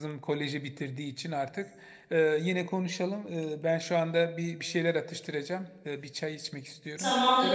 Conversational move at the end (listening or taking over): taking over